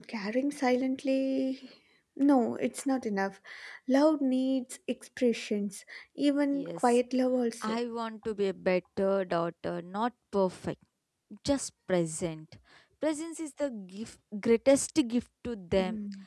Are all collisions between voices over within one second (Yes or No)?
Yes